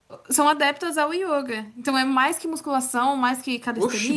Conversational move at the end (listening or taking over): taking over